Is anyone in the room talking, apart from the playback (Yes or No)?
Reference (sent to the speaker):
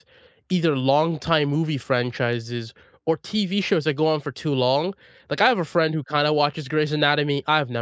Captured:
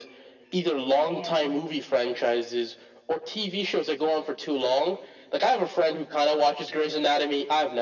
Yes